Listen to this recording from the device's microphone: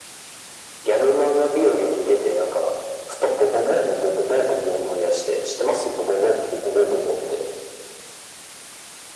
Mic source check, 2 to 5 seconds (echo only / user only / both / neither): echo only